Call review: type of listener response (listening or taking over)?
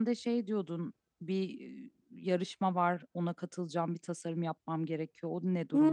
taking over